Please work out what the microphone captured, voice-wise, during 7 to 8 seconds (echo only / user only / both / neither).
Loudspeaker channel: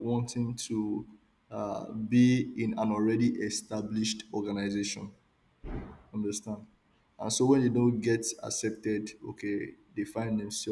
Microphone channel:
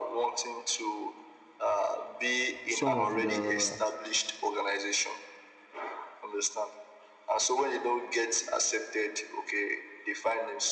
echo only